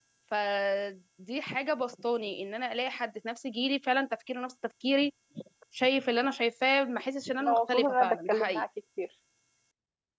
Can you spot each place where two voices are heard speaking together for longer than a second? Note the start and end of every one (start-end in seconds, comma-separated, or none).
7.4-8.6